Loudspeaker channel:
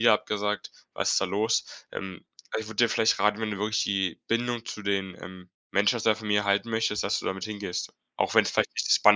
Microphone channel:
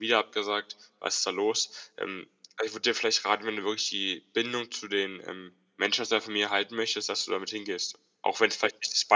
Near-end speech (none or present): none